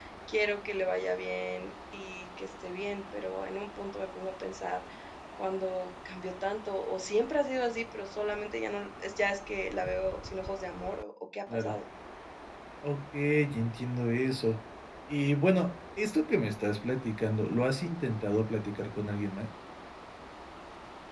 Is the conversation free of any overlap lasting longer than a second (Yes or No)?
Yes